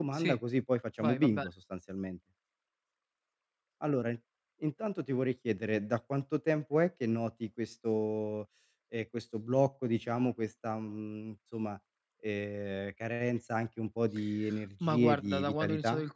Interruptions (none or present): present